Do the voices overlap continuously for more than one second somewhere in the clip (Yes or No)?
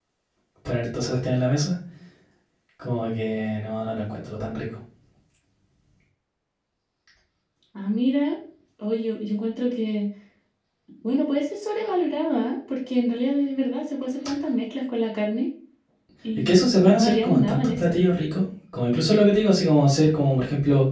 Yes